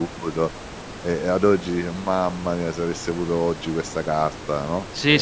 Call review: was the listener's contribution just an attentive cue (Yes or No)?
No